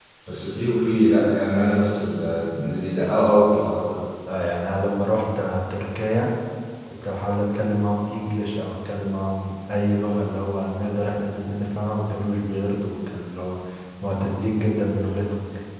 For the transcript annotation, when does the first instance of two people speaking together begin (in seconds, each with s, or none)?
none